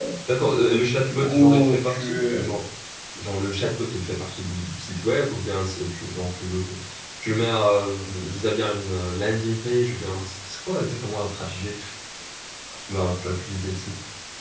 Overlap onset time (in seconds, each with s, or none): 1.0 s